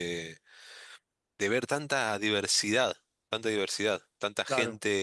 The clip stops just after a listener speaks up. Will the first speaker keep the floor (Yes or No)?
No